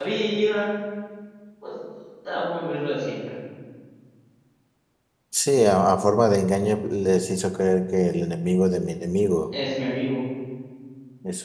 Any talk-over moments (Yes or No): No